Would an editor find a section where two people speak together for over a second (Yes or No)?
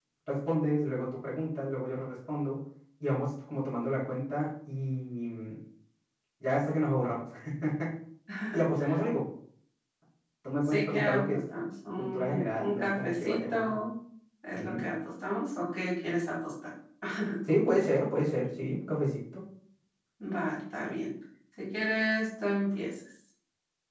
Yes